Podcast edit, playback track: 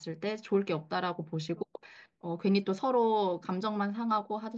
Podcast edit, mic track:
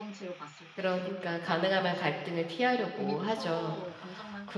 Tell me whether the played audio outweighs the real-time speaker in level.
No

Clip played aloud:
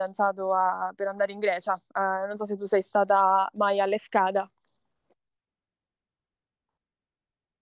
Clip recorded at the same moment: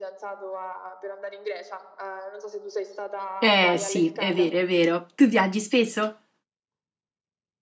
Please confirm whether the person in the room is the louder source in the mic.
Yes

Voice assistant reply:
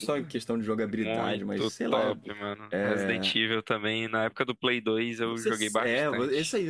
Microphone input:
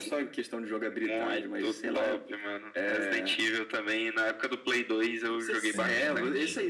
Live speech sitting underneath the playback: Yes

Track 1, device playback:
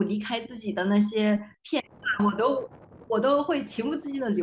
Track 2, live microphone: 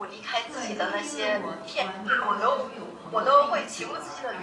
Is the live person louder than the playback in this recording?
No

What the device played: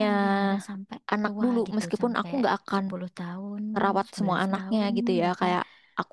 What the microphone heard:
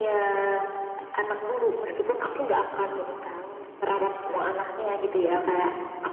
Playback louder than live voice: Yes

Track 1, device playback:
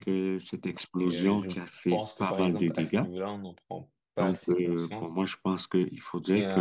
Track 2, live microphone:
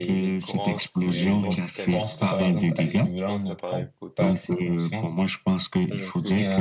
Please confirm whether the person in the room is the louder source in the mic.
No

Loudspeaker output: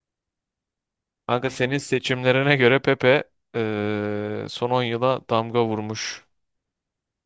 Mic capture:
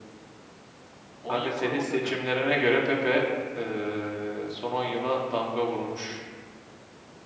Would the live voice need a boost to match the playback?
Yes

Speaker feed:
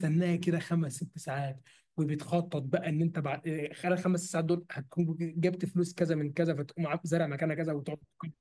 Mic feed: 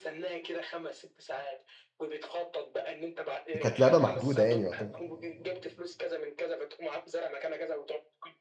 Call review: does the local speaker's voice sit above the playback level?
Yes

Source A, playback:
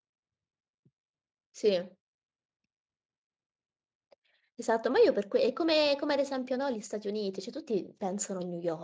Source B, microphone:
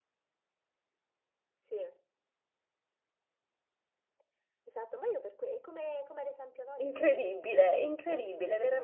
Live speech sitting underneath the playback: No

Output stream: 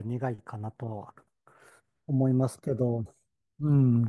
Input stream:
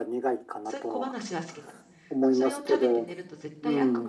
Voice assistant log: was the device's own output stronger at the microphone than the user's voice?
Yes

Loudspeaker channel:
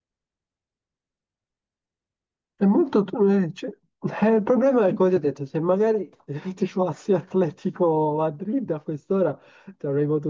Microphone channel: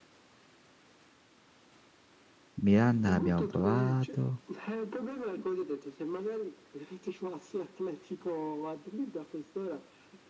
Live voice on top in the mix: Yes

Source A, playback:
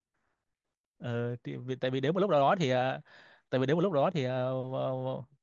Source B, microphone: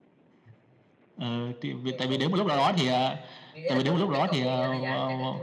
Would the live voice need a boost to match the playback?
Yes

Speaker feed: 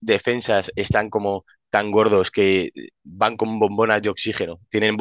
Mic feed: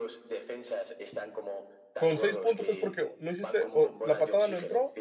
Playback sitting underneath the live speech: Yes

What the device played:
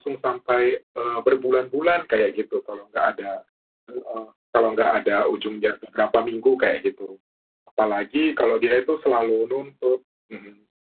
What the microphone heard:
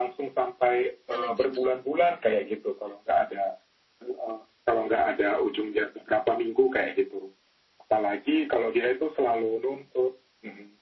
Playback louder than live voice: Yes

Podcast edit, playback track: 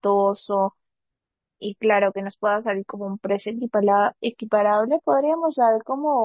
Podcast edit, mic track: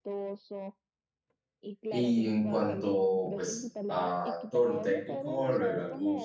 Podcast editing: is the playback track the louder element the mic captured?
No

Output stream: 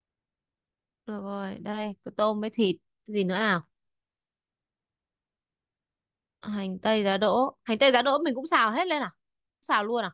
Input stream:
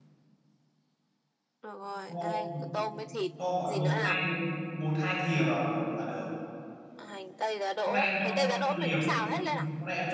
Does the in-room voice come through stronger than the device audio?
Yes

